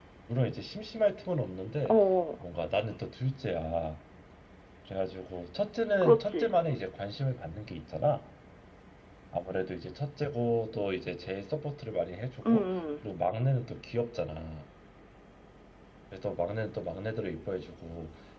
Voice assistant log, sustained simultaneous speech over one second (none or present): none